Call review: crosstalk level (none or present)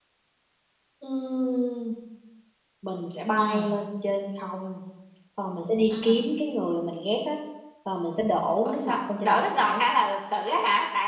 present